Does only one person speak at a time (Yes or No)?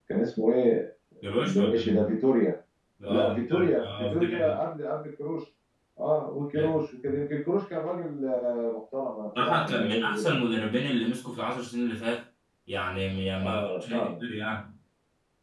No